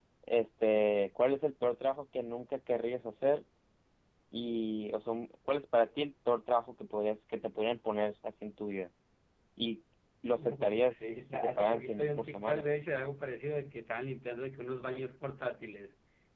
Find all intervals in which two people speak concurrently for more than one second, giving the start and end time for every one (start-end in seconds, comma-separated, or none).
10.4-12.7